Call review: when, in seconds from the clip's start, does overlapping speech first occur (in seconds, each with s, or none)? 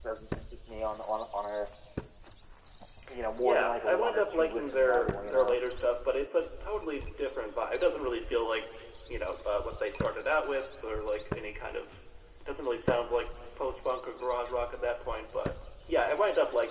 3.4 s